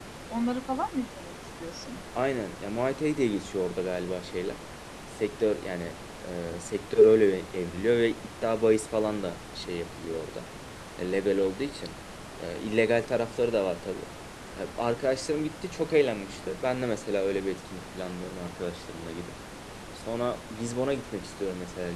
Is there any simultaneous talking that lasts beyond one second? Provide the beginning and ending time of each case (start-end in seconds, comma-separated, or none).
none